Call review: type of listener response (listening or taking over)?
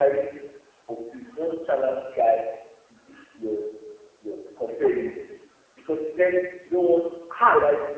listening